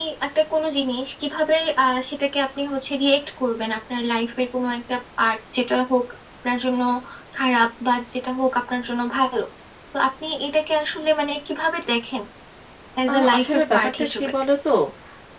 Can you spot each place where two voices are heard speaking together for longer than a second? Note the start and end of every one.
13.1-14.3

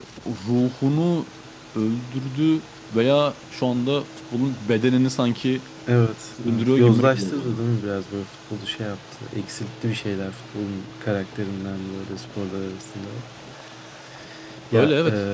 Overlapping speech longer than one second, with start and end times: 6.4-7.6

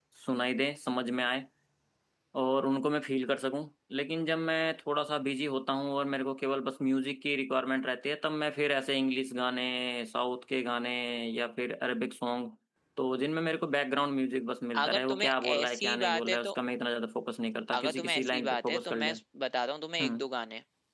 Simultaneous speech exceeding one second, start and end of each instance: 14.8-16.5, 17.7-19.2

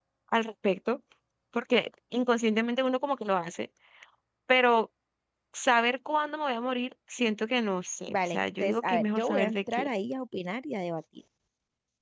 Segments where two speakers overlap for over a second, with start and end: 8.1-9.9

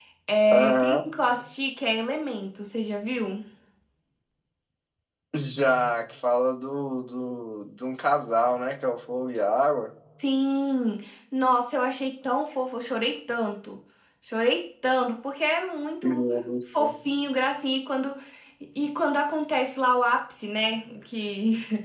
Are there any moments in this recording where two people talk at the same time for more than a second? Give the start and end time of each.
none

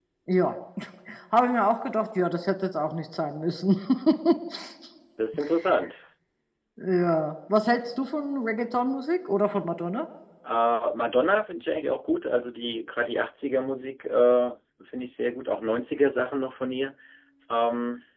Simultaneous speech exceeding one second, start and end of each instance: none

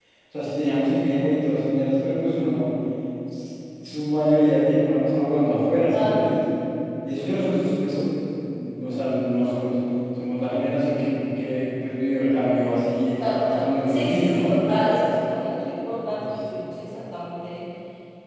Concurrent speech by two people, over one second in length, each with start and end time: 13.2-14.5

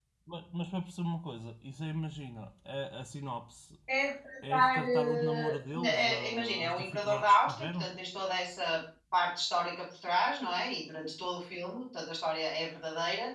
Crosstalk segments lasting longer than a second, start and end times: 4.5-7.9

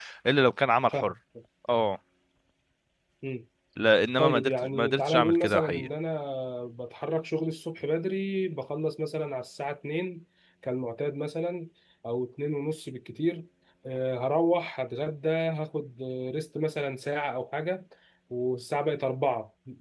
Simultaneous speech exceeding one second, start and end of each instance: 4.2-5.9

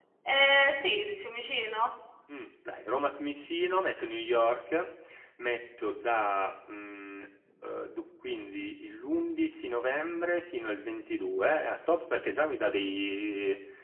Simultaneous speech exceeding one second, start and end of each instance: none

